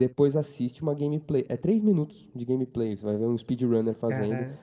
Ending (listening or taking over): listening